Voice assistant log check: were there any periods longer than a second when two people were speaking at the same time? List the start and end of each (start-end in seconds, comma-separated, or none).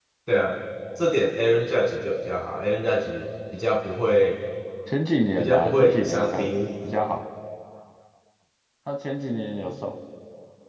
5.4-6.6